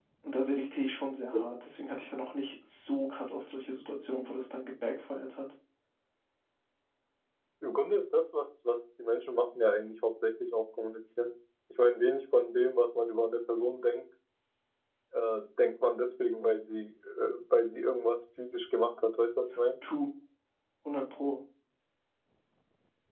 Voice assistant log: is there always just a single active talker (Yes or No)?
Yes